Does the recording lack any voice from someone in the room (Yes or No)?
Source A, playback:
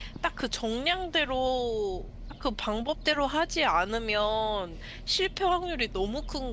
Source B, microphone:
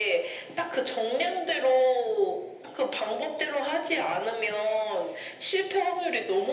Yes